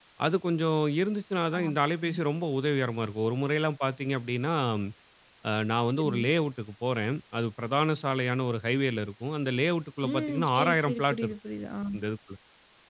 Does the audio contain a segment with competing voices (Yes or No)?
Yes